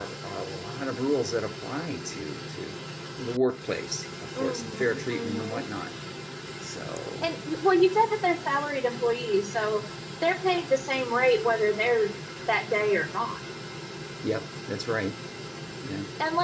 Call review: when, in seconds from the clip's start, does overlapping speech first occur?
4.3 s

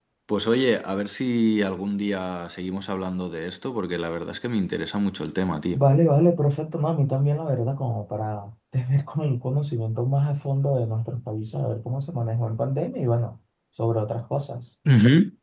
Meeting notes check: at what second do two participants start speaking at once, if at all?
none

